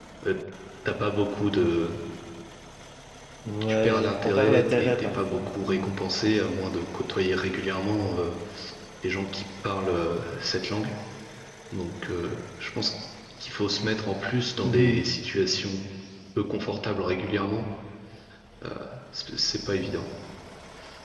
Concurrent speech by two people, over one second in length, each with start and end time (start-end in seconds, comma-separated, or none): 3.7-5.8